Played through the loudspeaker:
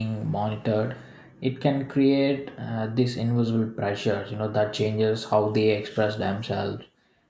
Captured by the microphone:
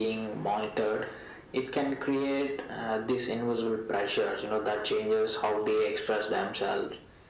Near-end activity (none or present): none